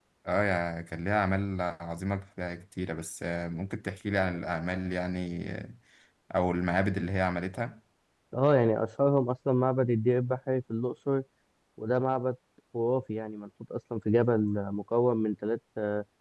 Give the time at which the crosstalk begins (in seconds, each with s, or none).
none